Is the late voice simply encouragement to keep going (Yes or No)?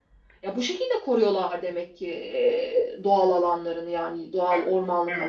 No